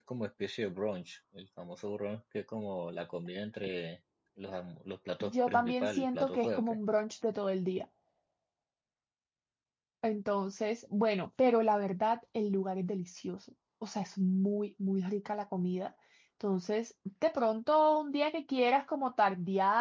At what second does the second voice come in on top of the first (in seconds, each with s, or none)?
5.2 s